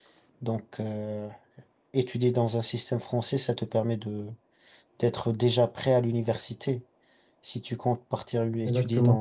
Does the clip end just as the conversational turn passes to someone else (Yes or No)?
No